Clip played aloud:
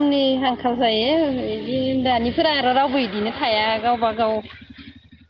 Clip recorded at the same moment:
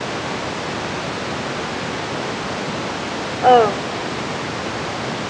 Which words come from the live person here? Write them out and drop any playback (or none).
ओं